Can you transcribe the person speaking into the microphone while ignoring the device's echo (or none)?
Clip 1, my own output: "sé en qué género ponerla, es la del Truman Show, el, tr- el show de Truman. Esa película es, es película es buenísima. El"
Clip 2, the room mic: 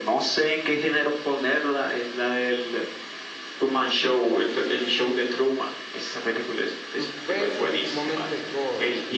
suspenso y sumamente gore.